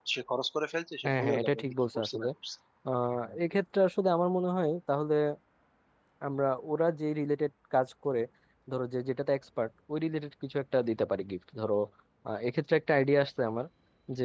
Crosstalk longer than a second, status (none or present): present